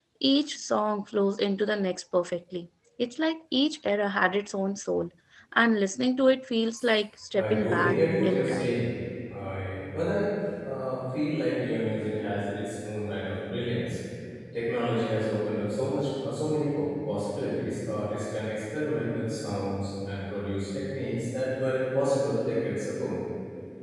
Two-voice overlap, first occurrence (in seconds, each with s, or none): 7.3 s